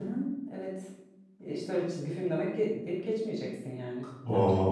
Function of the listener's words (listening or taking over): taking over